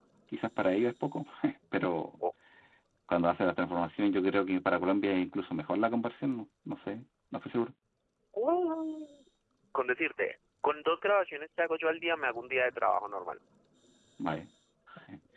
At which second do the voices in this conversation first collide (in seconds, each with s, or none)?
none